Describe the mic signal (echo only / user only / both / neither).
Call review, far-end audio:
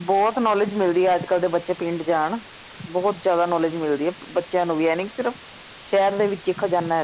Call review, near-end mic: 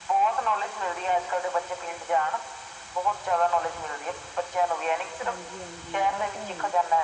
both